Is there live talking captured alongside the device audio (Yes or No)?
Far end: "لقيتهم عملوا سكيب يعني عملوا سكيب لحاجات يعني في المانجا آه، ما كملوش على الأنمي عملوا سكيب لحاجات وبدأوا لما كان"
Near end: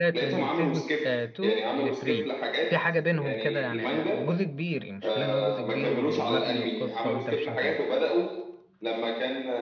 Yes